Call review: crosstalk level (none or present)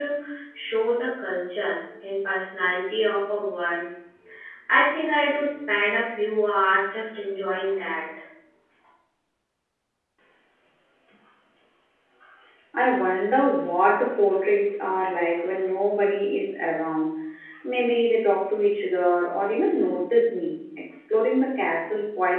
none